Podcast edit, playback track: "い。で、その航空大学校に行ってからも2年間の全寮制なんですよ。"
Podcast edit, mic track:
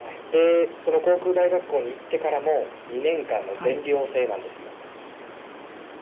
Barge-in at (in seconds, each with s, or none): 3.5 s